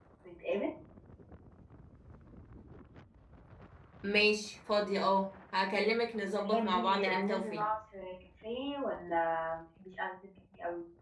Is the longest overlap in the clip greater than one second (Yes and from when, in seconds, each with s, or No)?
Yes, from 6.4 s